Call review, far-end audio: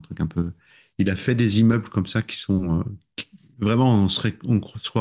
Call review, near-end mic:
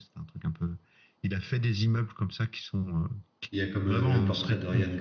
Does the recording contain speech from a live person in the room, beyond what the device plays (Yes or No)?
Yes